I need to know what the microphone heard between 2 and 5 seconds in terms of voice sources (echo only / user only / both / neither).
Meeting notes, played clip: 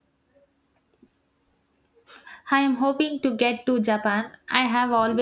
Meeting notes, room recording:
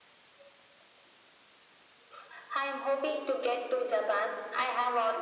echo only